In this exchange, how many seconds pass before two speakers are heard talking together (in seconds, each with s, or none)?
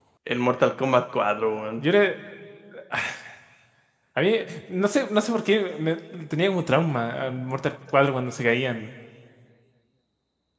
none